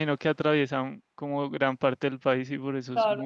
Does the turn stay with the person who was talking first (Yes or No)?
No